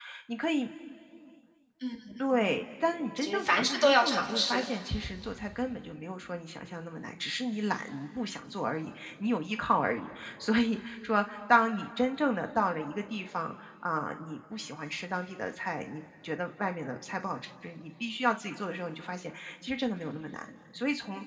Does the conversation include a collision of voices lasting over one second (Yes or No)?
Yes